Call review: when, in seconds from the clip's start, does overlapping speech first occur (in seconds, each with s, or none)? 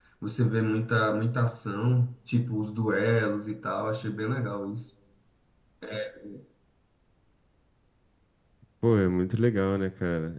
none